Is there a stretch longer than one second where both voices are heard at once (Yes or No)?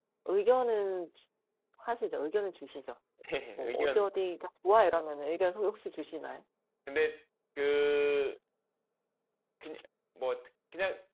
No